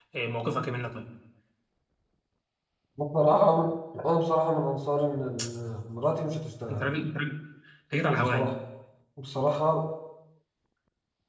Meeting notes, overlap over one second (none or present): none